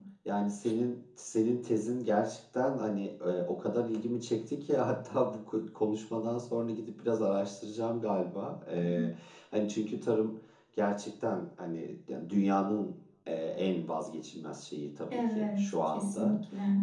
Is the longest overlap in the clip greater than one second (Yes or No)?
Yes